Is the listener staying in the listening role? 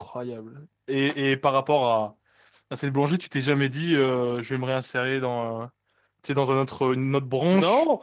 No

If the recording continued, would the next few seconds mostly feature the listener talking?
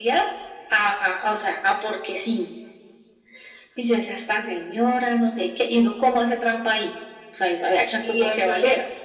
Yes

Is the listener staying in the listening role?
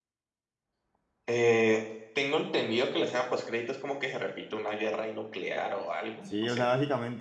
No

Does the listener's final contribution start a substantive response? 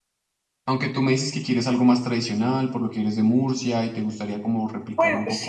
Yes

